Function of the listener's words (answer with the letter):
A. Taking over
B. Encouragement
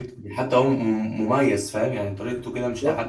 A